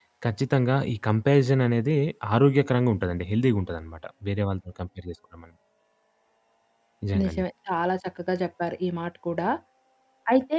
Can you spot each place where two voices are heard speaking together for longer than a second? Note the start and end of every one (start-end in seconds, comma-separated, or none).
none